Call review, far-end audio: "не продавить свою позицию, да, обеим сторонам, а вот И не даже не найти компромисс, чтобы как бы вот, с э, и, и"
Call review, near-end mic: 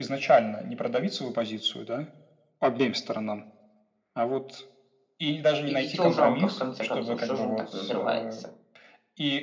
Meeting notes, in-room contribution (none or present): present